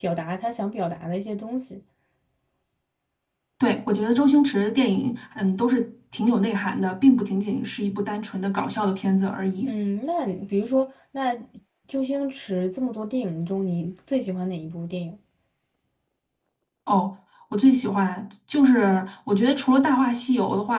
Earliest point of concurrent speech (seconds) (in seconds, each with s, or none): none